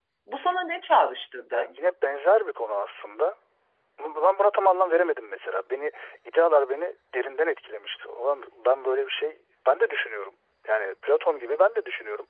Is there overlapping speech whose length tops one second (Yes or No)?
No